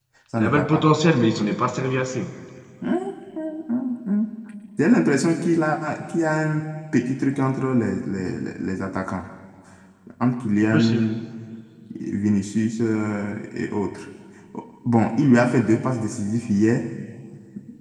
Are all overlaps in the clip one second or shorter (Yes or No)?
Yes